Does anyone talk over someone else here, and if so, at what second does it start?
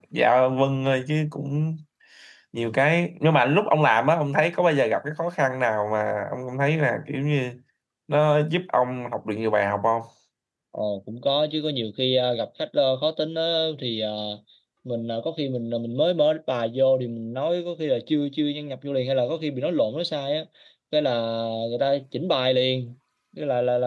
none

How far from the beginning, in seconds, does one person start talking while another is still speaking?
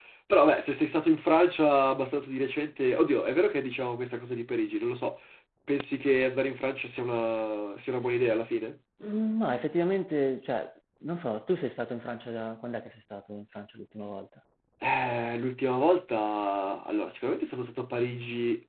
none

